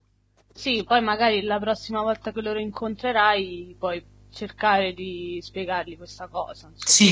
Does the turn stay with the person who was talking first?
No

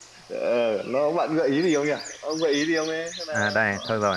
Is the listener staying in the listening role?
No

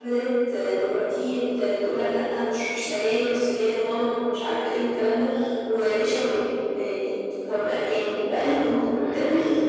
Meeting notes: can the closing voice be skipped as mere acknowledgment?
Yes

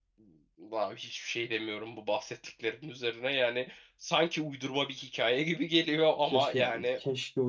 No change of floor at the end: No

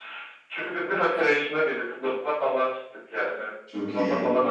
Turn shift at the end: No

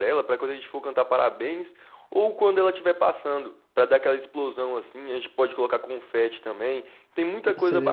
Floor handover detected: Yes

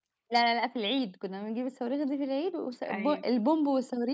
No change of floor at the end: Yes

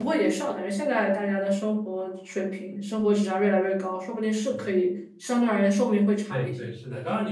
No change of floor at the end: No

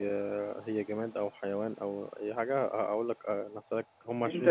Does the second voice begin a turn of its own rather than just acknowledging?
Yes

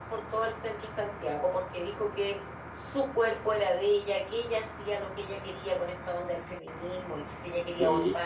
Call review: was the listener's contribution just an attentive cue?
Yes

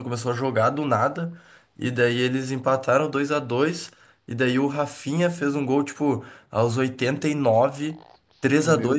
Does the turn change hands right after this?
No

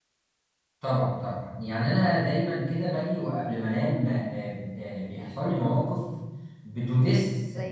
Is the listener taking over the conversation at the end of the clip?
No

